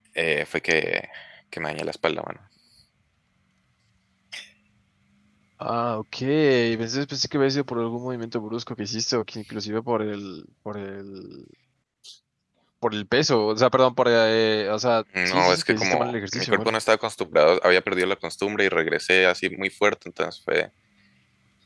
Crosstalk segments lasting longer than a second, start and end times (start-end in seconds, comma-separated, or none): 15.2-16.8